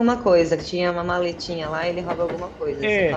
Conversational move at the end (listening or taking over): taking over